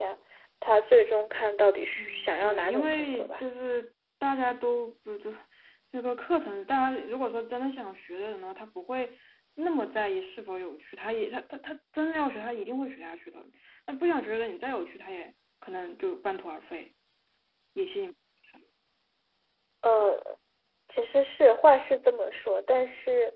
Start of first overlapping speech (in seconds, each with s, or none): 2.0 s